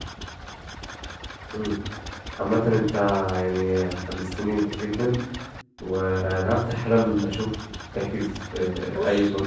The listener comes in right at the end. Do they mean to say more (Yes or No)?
Yes